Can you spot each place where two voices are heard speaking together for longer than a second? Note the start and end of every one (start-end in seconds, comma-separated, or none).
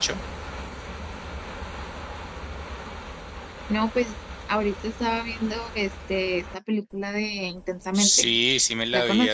none